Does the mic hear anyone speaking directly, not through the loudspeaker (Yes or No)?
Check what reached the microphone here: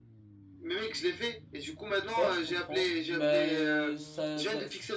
Yes